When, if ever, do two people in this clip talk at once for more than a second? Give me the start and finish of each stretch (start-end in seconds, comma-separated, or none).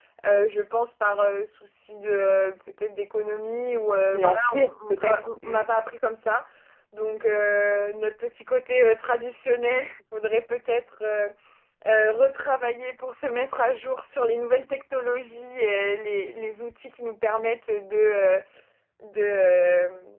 4.1-5.6